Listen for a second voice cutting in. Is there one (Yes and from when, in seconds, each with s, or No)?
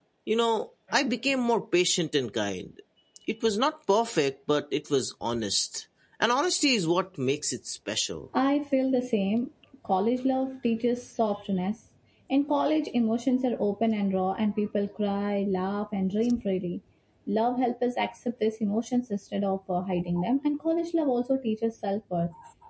No